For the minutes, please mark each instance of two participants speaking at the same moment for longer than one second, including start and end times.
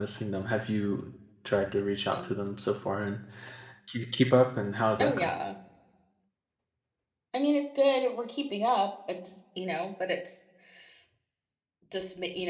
none

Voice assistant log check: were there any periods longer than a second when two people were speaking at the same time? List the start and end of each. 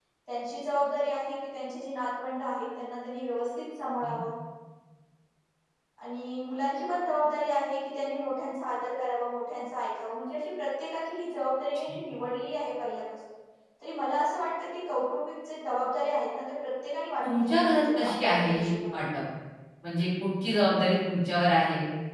17.3-18.7

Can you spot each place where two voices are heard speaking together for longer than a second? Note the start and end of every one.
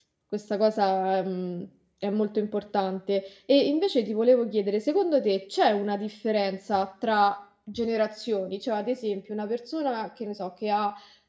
none

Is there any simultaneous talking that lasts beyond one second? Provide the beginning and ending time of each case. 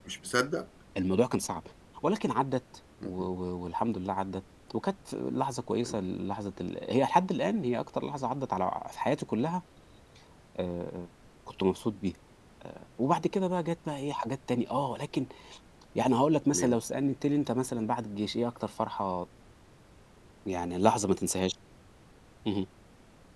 none

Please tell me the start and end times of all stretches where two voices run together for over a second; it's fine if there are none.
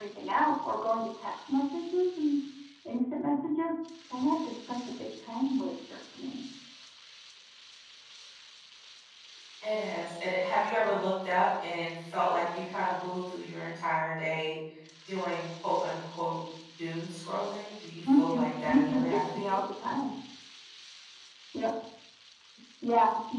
18.1-19.6

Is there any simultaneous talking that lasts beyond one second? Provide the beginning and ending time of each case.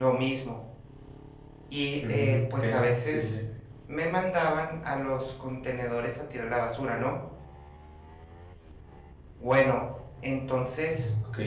2.1-3.4

